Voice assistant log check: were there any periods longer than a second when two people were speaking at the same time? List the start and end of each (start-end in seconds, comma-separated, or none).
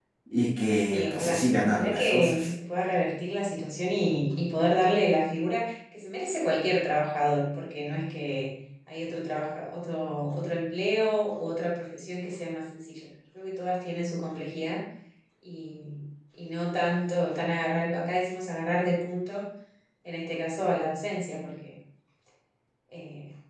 0.9-2.5